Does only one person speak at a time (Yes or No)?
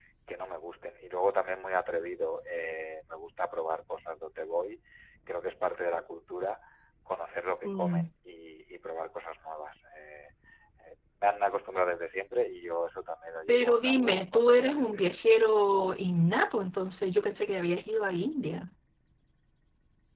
No